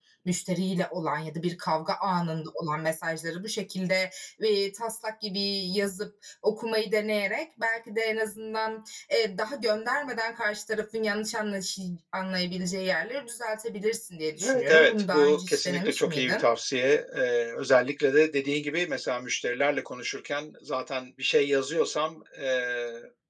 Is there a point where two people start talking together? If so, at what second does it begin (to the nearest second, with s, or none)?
14 s